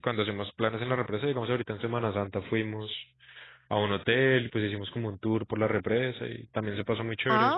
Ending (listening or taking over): taking over